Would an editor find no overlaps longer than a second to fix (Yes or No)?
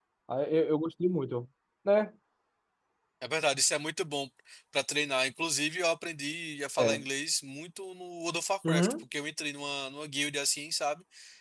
Yes